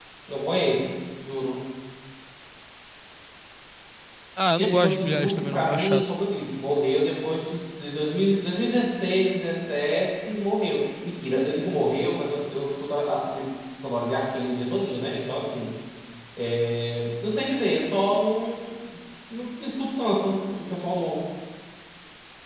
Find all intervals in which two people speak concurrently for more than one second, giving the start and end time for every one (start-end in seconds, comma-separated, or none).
4.6-6.1